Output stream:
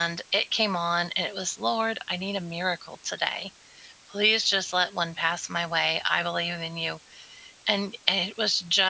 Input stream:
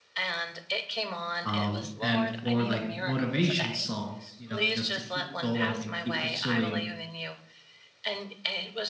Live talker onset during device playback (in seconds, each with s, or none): 1.4 s